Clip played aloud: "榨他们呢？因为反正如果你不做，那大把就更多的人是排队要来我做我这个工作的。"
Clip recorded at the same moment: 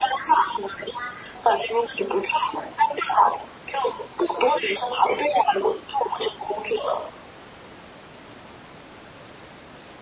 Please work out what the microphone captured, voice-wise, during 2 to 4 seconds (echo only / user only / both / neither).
echo only